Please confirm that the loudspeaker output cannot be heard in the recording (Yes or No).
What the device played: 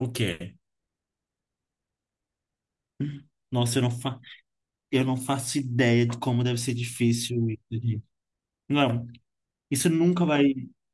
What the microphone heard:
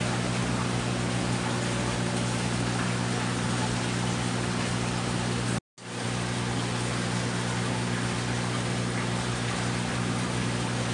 Yes